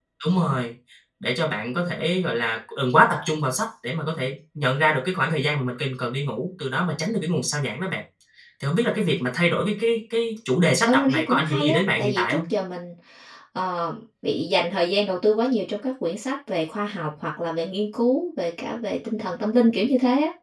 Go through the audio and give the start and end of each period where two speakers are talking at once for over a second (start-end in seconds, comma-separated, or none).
10.8-12.4